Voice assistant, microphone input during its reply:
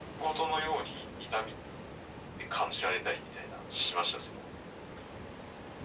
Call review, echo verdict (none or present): present